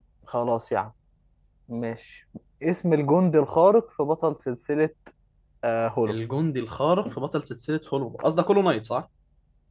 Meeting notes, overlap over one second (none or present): none